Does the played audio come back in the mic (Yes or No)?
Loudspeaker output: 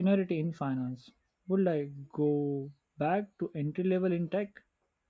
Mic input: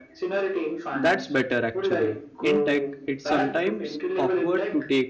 Yes